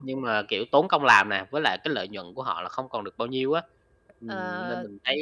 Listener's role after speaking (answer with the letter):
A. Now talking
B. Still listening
A